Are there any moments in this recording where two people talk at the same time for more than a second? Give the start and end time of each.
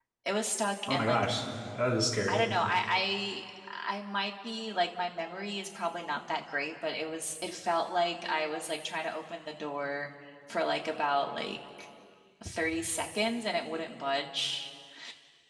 none

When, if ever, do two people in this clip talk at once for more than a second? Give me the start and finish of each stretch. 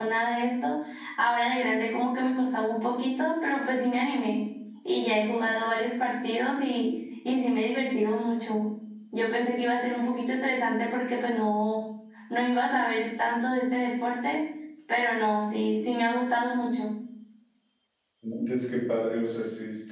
none

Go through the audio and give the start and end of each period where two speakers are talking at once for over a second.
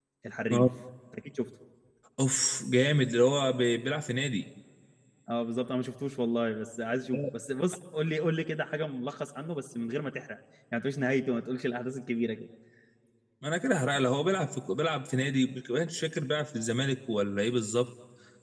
none

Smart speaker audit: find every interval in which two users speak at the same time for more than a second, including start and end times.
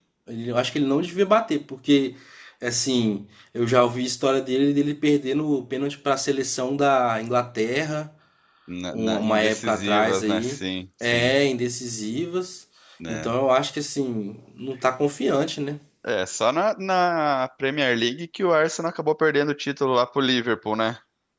8.9-10.6

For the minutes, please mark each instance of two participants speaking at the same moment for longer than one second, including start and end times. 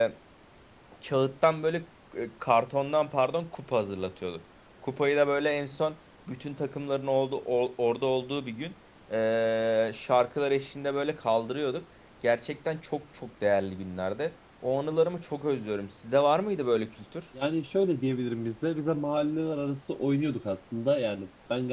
none

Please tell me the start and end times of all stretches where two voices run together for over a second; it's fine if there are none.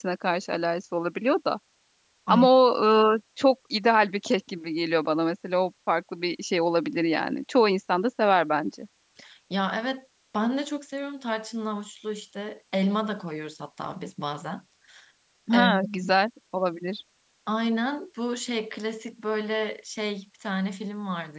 none

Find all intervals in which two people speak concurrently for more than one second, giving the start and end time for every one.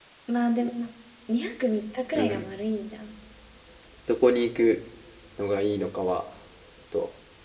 none

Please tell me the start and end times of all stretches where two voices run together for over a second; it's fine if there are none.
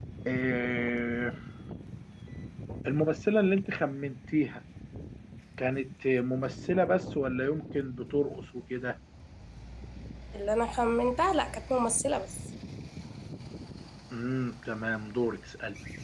none

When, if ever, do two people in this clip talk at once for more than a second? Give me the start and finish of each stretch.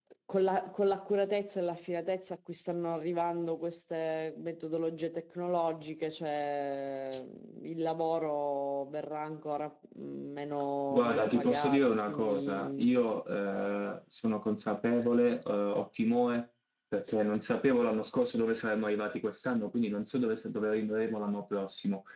10.9-12.8

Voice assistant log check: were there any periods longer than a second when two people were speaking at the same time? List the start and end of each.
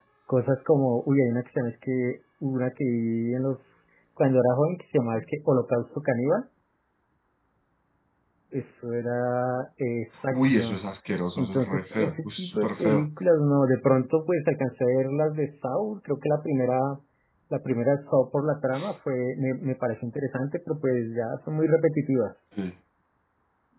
11.4-13.0

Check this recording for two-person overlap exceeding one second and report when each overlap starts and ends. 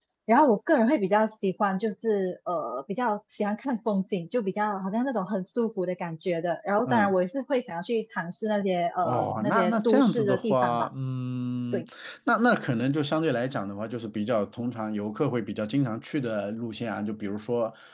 9.0-10.9

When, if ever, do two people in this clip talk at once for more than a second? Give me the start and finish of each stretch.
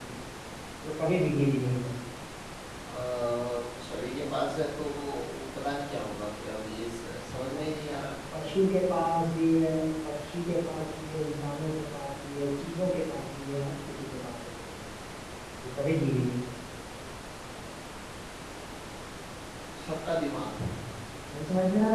none

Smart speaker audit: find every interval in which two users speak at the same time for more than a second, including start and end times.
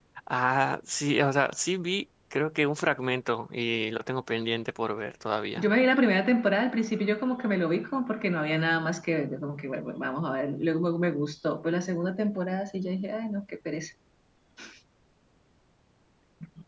none

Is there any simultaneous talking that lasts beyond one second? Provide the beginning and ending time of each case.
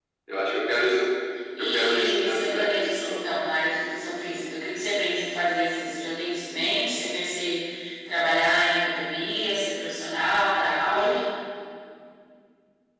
1.6-3.2

